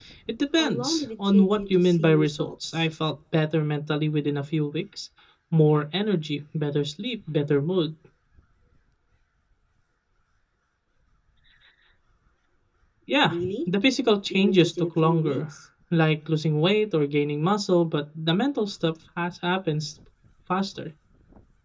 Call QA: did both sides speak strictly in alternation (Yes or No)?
No